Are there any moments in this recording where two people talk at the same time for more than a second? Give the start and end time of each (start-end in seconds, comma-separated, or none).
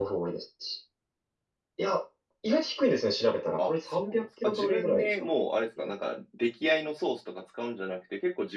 3.6-5.3